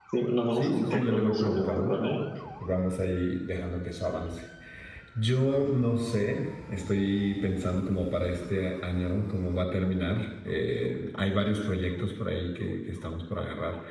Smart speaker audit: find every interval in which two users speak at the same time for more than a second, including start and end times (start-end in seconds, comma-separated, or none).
0.5-2.0